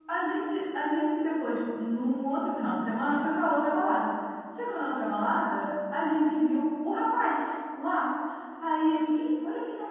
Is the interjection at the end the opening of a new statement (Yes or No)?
No